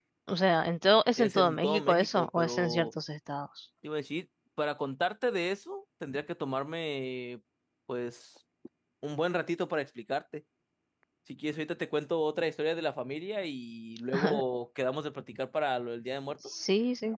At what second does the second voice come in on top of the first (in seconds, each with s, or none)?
1.2 s